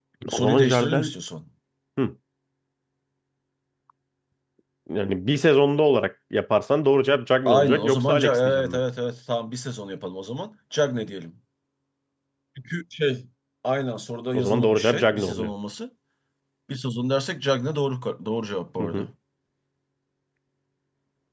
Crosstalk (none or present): present